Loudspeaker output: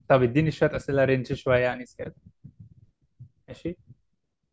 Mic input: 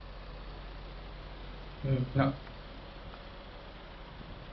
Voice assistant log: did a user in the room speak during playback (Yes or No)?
Yes